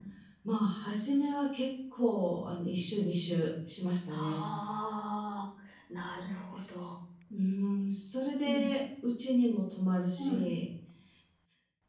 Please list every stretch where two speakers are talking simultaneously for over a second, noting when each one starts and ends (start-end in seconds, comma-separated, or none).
none